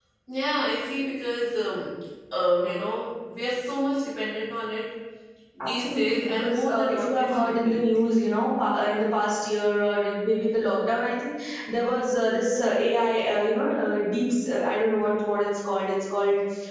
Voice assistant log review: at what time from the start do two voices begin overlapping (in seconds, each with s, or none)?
5.6 s